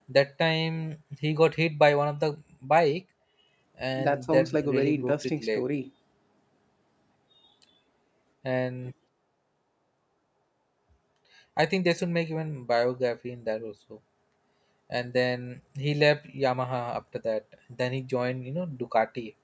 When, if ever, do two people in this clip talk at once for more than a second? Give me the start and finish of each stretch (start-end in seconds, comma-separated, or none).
4.0-5.6